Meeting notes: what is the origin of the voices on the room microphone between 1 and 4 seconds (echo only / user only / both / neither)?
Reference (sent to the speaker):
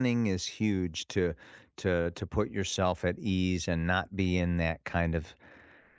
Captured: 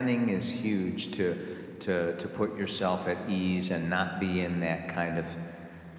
echo only